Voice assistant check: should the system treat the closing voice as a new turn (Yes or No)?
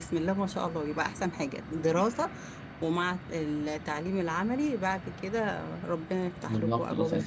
Yes